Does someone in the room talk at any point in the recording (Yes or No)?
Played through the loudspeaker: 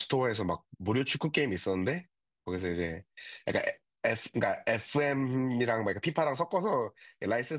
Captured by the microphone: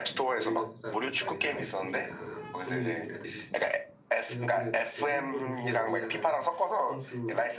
Yes